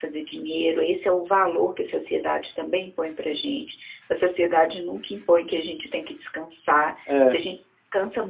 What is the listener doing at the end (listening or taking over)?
listening